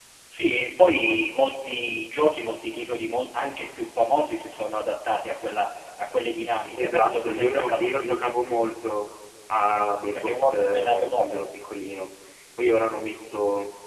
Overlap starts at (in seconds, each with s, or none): 6.8 s